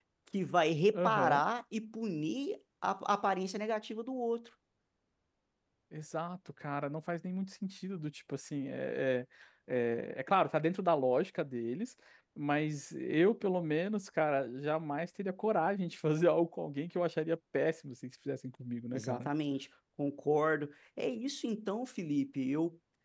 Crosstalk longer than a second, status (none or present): none